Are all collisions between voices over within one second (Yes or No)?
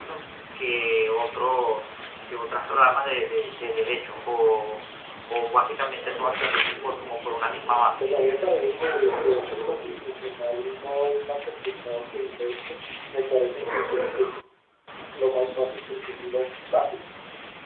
Yes